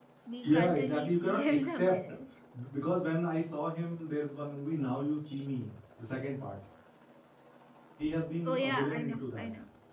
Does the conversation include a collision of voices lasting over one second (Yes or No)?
Yes